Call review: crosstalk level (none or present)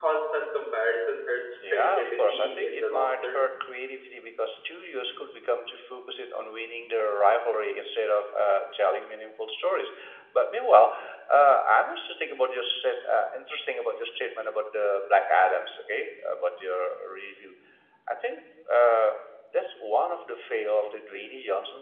present